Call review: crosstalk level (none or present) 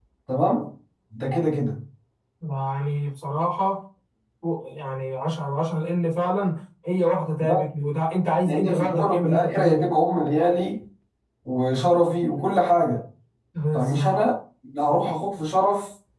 present